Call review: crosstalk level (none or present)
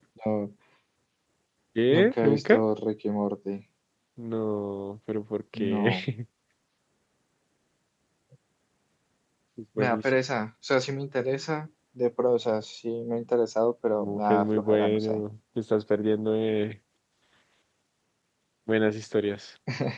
present